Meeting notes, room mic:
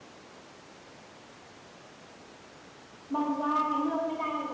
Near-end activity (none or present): present